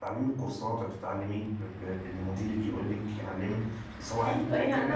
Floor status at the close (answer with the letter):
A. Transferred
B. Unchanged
A